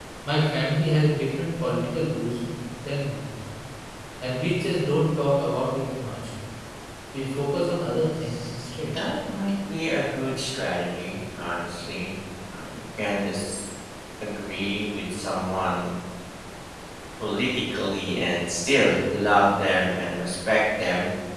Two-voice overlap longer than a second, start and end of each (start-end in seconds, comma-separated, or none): none